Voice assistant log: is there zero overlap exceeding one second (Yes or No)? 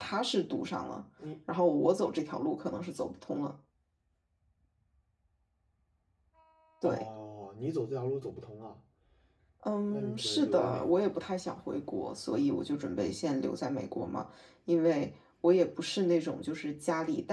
No